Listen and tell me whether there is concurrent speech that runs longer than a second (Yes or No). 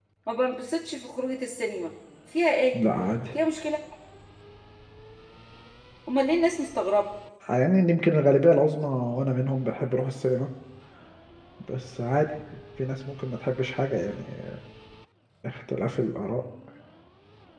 No